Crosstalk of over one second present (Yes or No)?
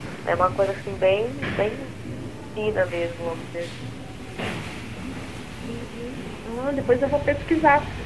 No